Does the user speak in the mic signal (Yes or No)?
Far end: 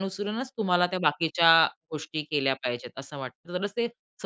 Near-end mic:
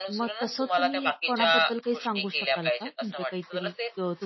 Yes